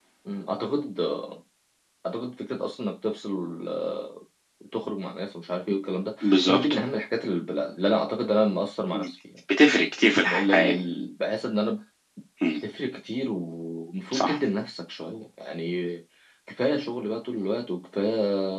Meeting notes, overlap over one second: none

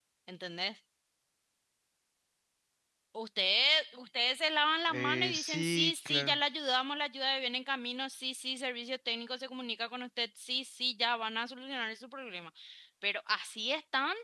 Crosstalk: present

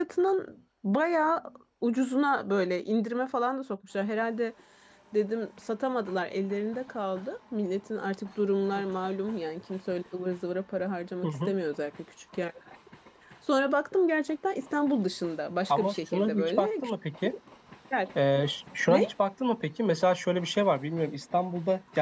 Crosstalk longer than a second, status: present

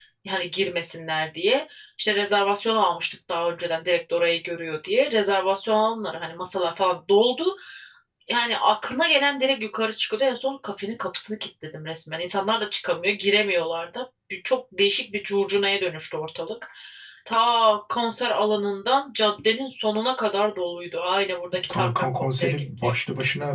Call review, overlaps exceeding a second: present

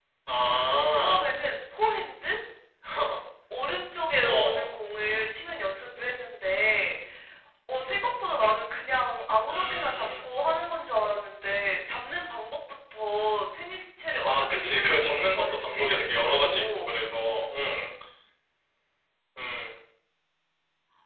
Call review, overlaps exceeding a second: present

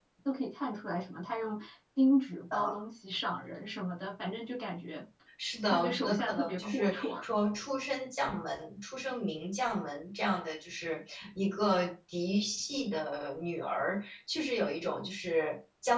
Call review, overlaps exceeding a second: present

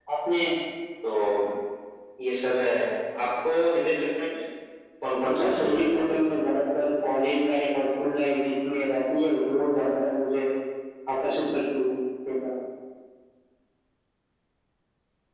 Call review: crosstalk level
present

